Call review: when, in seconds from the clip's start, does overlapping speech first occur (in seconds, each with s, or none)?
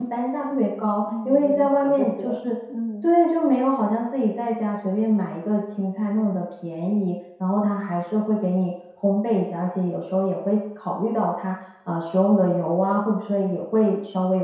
1.2 s